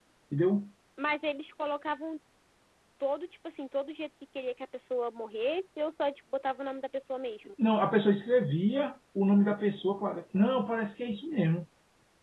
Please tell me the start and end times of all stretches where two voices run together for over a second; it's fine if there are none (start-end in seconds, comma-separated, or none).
none